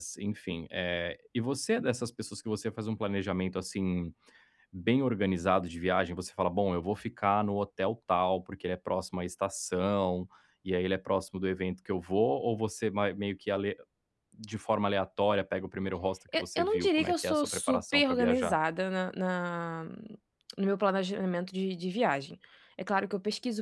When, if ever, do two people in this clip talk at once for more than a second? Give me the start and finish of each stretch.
16.4-18.6

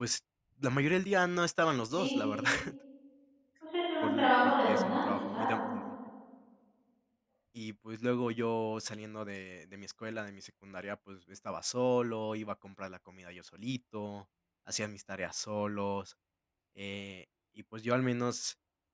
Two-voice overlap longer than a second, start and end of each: 4.0-5.6

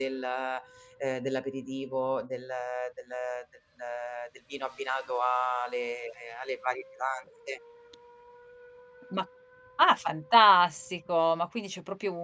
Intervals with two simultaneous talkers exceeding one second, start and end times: none

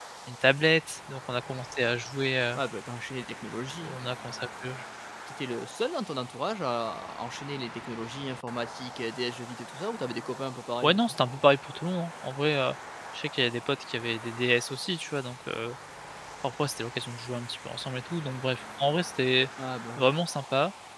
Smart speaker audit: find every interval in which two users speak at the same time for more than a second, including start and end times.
none

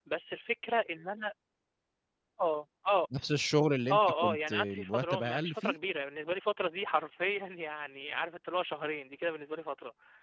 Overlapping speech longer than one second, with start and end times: 3.9-5.8

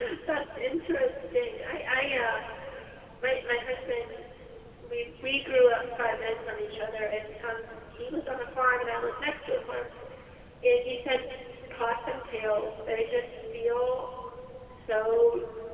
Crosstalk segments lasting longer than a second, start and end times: none

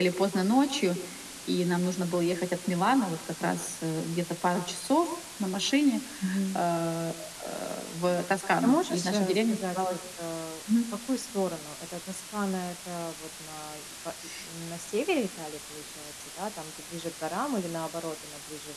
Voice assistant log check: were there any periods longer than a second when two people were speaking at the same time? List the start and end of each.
8.6-10.0

